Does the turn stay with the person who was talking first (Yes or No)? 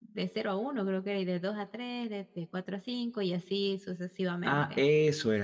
No